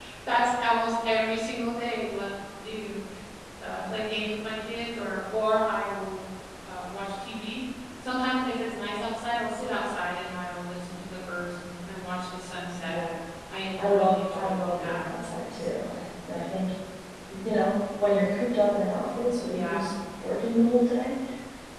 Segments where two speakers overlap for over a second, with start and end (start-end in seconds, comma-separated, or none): 13.8-15.0